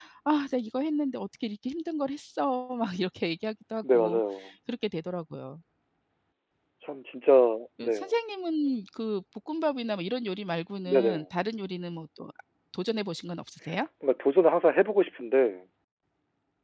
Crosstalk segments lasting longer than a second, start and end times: none

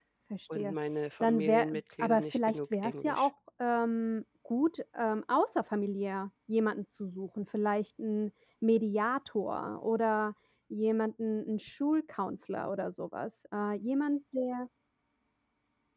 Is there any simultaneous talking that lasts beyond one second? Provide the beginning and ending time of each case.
1.2-3.3

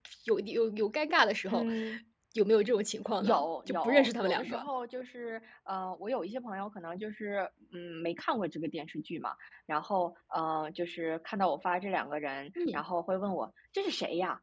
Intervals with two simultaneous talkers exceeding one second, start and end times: 3.2-4.6

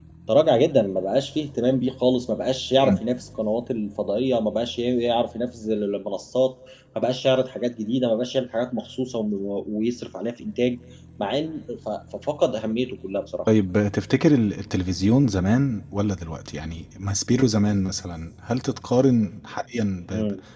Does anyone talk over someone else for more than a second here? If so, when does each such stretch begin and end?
none

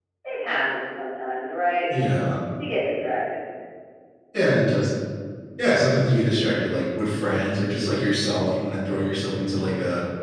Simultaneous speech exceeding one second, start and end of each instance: none

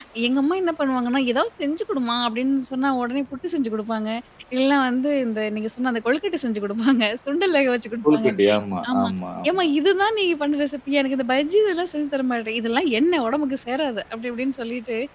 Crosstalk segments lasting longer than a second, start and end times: none

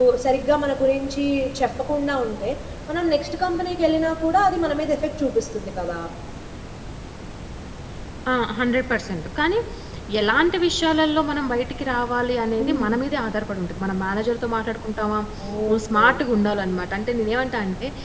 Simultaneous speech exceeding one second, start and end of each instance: none

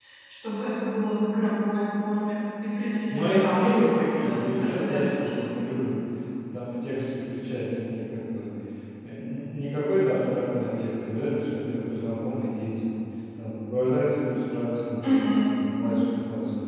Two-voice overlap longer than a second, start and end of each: 3.1-5.5

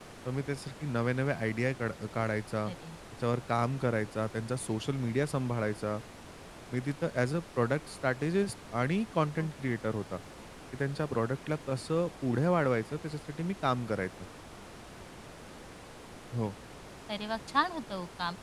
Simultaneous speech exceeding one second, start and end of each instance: none

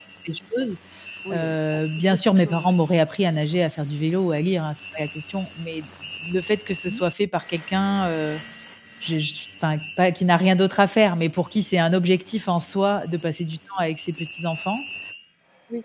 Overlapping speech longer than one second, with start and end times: 1.3-2.8

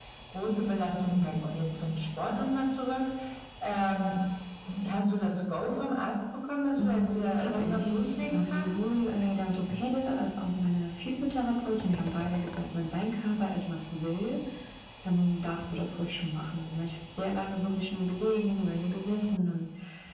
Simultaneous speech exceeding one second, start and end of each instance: 6.8-8.8

